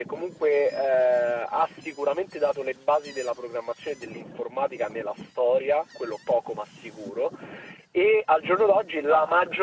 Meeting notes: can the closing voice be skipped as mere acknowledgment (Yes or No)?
Yes